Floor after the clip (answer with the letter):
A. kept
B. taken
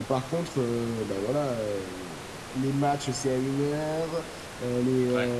A